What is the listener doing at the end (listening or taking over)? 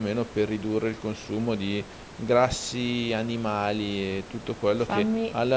listening